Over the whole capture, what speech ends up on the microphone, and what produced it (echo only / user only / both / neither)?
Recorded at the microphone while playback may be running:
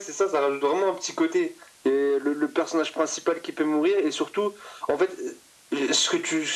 echo only